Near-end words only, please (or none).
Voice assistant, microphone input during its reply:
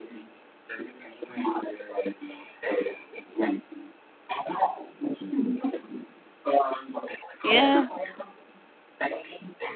ياه!